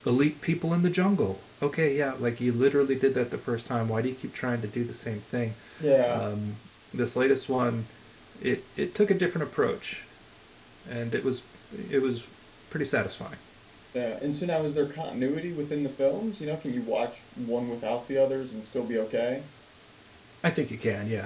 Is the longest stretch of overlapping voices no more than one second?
Yes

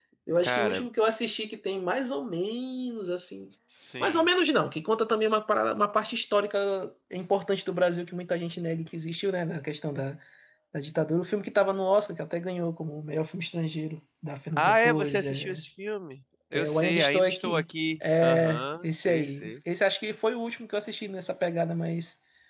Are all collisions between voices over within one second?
No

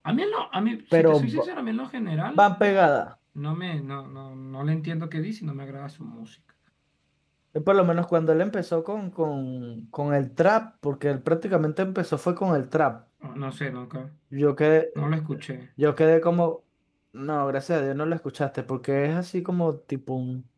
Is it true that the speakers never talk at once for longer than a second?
Yes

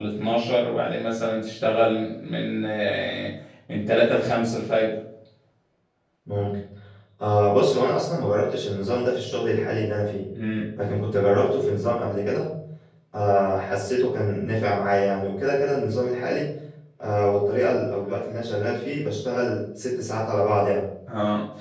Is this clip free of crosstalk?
Yes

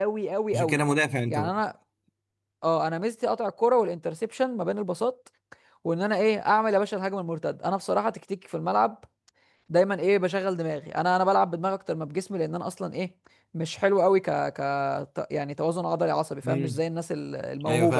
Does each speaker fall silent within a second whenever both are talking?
Yes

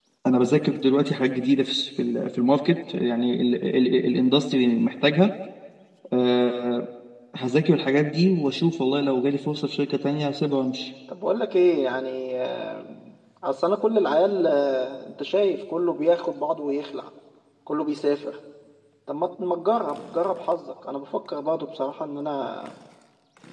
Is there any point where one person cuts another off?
No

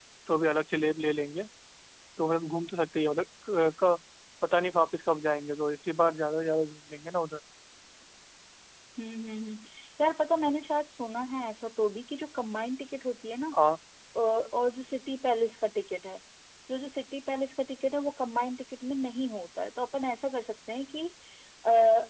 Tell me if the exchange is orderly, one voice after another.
Yes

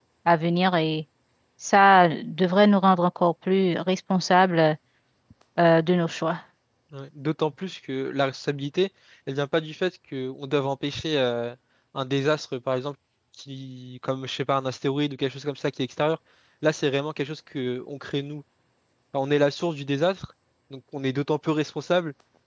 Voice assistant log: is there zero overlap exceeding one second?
Yes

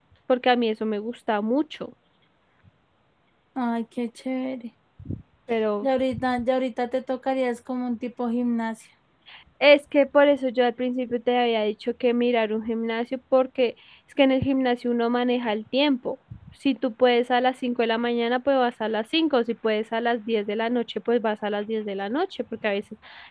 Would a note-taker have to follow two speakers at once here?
No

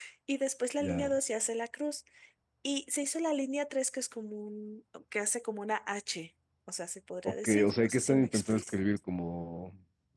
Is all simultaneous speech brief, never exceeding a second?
No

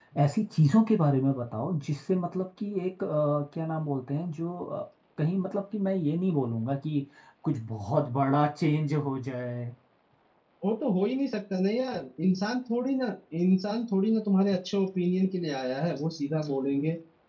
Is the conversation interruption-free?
Yes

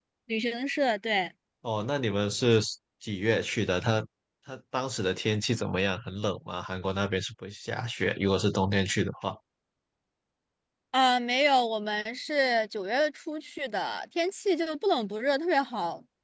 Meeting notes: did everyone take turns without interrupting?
Yes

